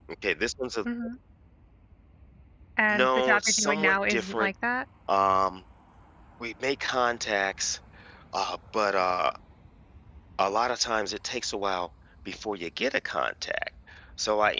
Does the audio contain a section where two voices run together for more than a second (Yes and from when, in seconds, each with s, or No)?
Yes, from 2.9 s